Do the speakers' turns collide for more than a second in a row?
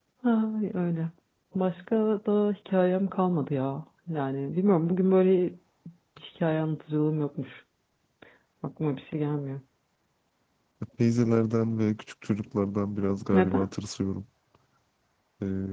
No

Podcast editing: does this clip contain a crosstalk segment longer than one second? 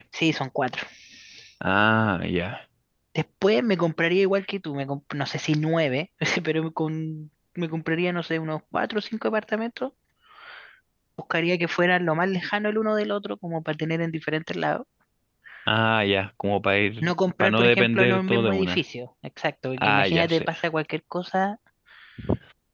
Yes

